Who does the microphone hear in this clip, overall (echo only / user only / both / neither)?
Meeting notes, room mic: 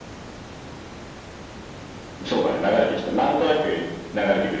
echo only